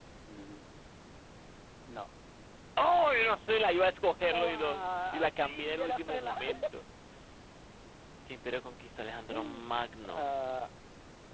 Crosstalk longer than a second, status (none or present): present